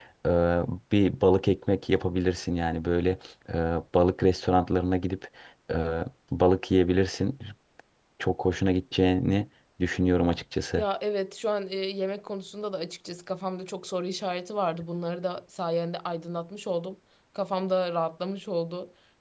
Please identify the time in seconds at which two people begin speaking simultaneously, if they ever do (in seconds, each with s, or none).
none